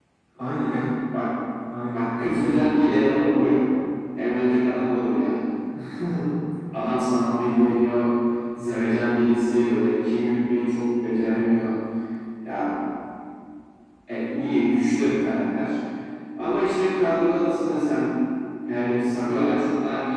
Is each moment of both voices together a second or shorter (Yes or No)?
No